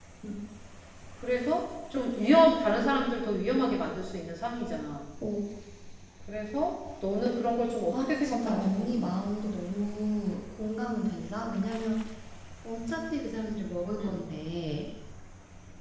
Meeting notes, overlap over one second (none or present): present